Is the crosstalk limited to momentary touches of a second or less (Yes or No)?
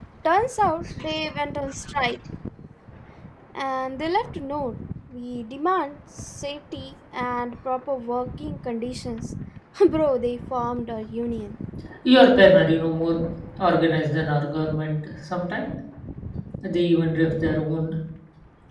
Yes